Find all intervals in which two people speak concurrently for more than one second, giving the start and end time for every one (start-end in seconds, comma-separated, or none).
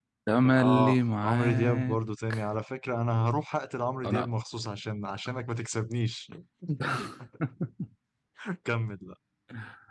0.6-2.0